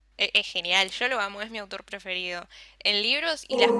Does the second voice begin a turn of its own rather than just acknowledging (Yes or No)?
No